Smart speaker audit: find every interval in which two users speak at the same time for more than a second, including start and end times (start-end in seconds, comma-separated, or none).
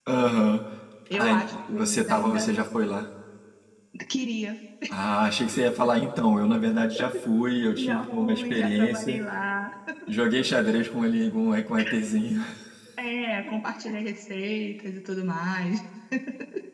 1.2-2.4, 7.8-9.2